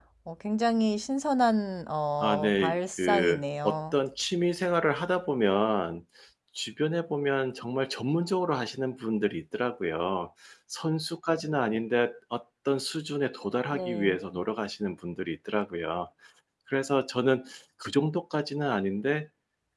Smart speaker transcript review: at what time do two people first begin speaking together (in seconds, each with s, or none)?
2.2 s